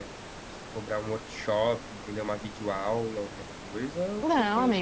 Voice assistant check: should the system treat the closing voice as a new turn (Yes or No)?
Yes